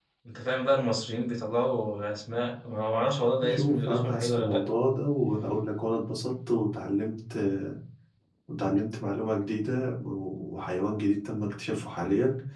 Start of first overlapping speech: 3 s

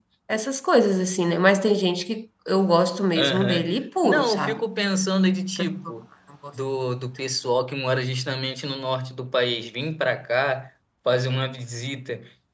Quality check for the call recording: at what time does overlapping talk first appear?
3 s

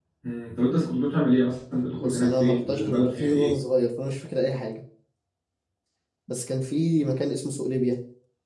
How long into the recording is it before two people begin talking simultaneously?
2 s

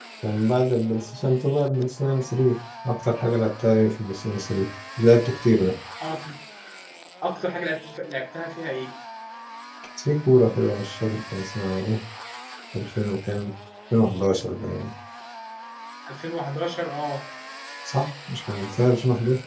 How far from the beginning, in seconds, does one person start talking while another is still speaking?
none

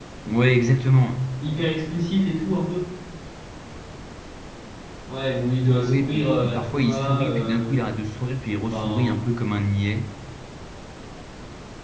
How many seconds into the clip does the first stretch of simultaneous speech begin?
6 s

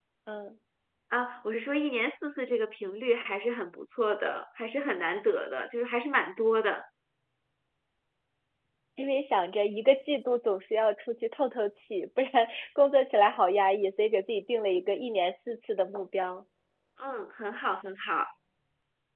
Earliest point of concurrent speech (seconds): none

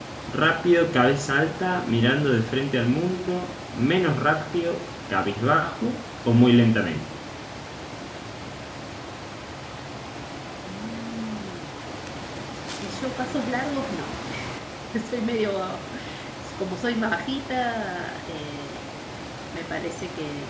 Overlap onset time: none

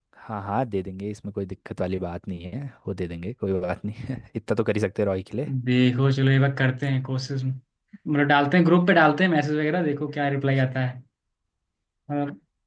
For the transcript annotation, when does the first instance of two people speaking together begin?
none

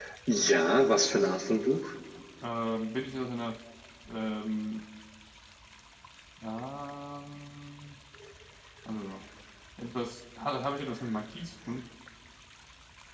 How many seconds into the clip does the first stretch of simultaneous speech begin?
none

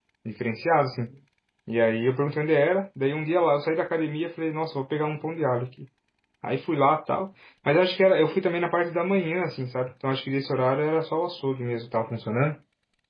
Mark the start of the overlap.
none

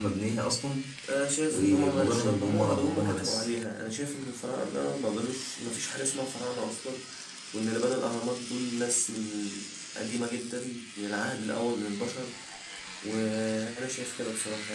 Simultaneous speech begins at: 2 s

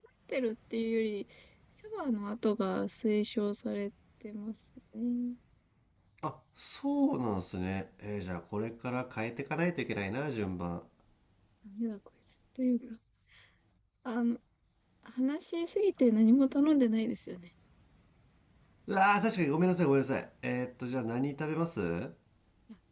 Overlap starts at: none

